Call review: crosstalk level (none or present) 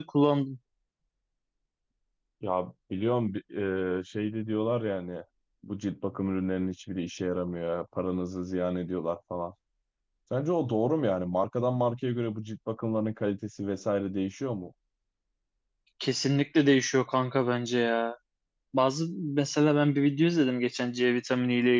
none